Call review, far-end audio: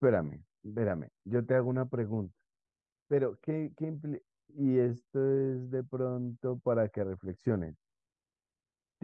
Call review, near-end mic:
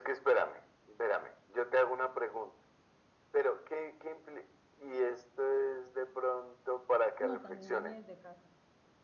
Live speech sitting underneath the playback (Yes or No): Yes